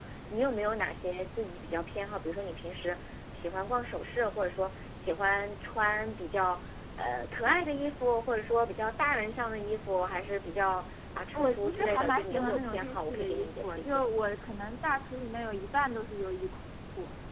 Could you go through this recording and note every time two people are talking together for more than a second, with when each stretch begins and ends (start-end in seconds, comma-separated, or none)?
11.4-14.0